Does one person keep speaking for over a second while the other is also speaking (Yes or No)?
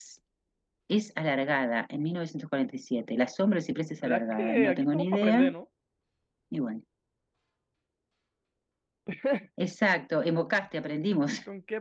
Yes